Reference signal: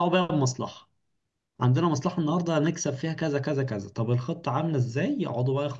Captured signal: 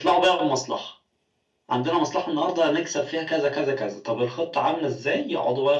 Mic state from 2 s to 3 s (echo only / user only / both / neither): echo only